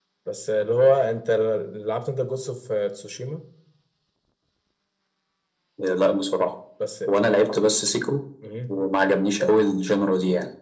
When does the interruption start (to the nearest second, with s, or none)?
none